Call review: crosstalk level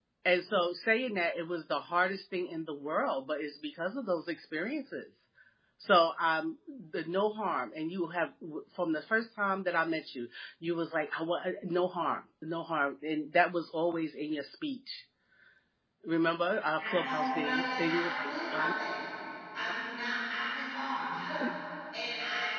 present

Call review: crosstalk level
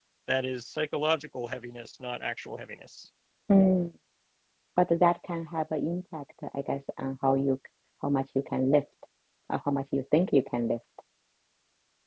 none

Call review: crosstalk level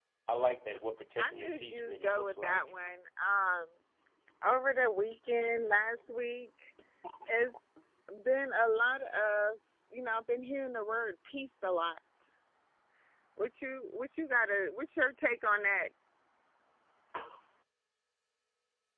present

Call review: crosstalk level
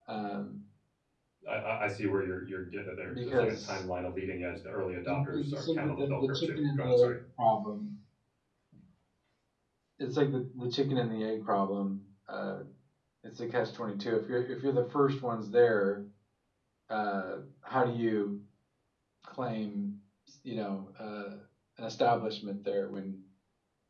present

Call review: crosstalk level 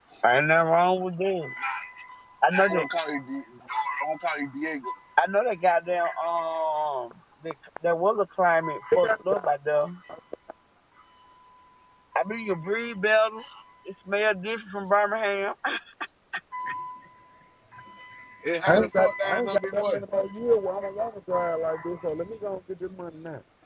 present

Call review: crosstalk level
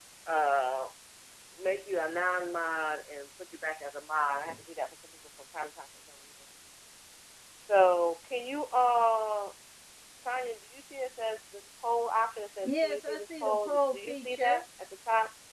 present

